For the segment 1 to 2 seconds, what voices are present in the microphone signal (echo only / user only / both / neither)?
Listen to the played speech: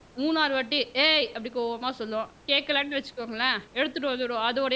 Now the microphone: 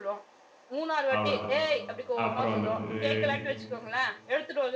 both